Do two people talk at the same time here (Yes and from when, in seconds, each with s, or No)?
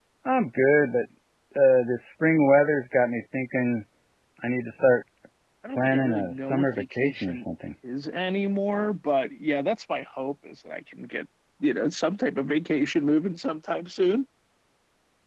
Yes, from 5.7 s